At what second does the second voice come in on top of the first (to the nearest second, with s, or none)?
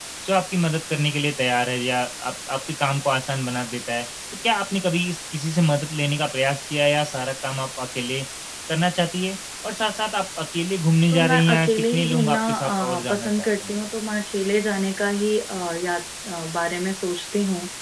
11 s